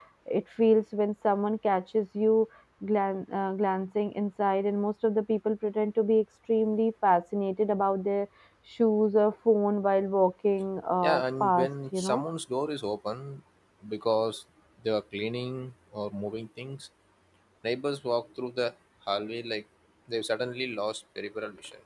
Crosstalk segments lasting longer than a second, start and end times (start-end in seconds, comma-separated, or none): 11.0-12.2